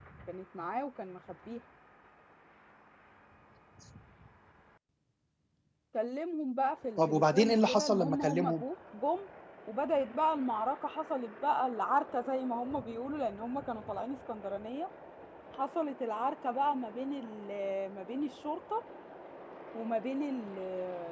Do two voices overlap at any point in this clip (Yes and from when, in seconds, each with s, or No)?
Yes, from 7.0 s